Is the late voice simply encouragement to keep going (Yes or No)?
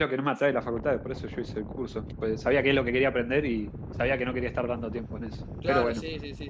No